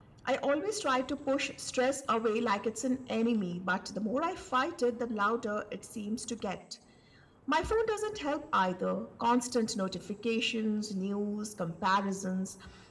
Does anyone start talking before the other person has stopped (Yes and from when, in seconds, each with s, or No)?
No